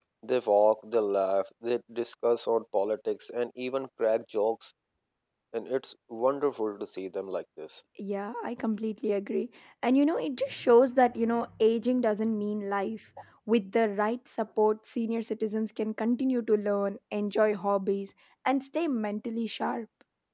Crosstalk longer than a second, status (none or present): none